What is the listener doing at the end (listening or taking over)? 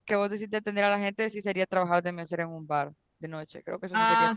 taking over